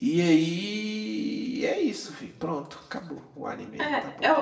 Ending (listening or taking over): taking over